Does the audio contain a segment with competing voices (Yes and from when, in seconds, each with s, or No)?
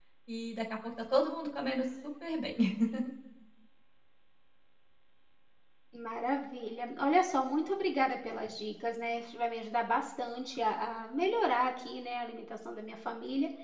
No